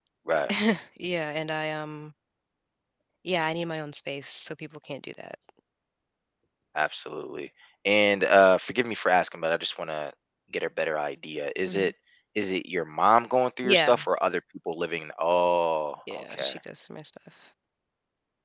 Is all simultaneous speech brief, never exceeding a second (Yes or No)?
Yes